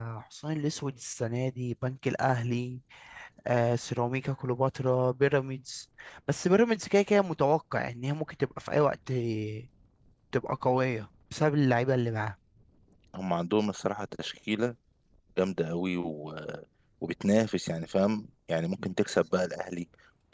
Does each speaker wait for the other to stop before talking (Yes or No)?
Yes